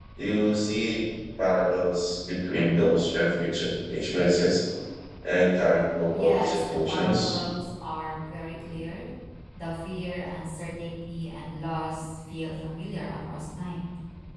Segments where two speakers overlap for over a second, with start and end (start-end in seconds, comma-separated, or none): 6.1-7.4